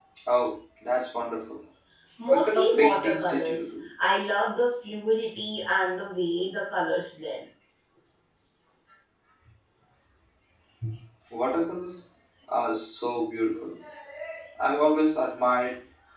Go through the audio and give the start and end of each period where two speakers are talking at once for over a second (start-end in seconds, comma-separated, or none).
2.3-3.6